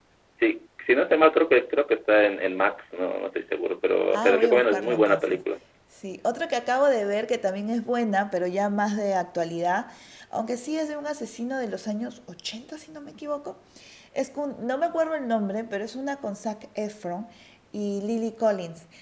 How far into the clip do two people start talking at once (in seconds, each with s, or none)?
4.1 s